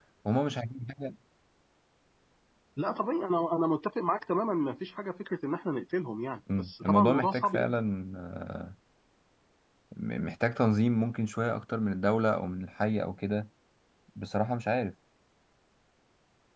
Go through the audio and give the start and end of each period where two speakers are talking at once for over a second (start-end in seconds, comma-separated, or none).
6.6-7.8